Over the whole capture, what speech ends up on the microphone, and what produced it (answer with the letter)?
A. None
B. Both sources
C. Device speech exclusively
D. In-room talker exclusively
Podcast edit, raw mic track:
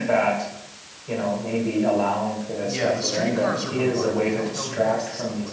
B